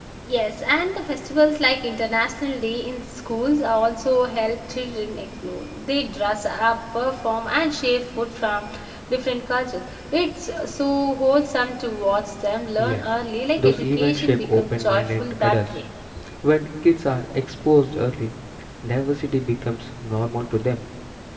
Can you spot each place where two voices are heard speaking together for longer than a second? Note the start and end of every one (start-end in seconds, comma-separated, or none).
13.6-15.7